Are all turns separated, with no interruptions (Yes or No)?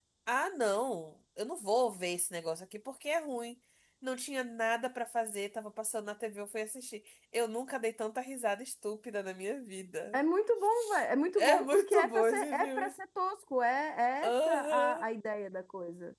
No